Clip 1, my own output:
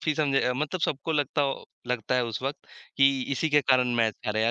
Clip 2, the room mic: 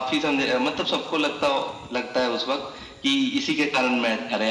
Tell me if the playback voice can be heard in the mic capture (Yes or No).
Yes